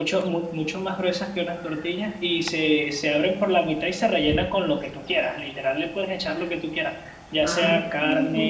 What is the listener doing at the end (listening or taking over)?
listening